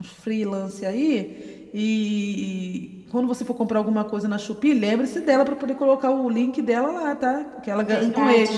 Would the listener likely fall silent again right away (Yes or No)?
No